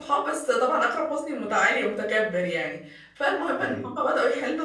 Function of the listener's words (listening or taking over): listening